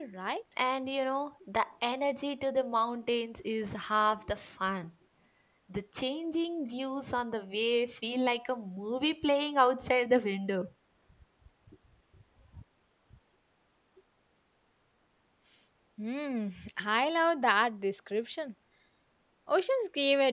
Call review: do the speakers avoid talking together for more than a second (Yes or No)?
Yes